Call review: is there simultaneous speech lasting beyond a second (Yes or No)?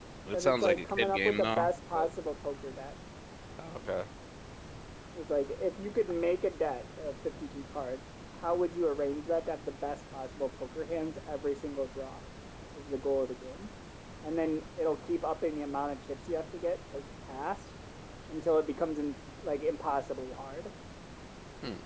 Yes